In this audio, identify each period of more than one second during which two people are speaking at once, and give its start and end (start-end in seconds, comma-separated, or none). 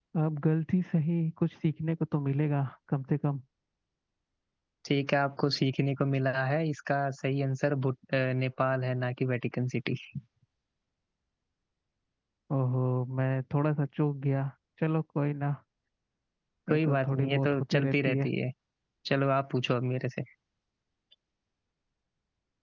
16.7-18.3